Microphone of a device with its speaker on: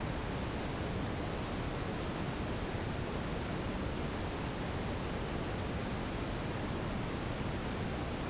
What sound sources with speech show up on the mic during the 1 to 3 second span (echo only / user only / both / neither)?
neither